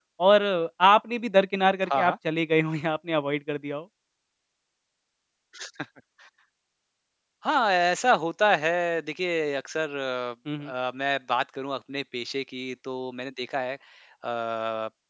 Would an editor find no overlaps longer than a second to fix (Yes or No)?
Yes